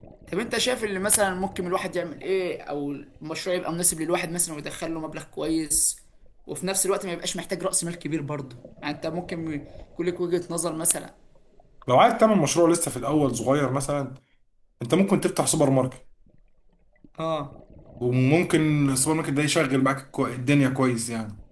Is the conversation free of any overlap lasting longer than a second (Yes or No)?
Yes